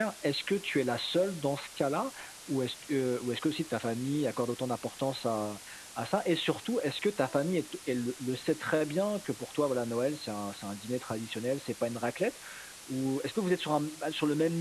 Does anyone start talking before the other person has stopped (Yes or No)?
No